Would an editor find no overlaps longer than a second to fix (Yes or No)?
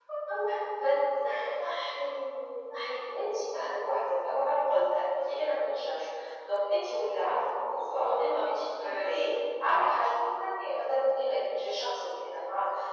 No